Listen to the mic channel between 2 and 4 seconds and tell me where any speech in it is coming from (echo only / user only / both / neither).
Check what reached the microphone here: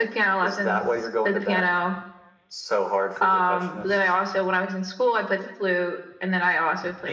echo only